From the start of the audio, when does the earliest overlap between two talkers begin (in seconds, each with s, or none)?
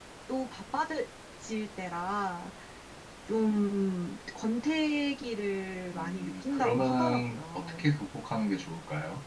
5.9 s